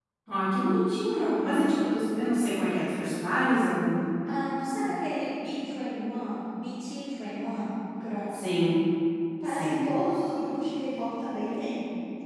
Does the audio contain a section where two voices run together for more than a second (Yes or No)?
No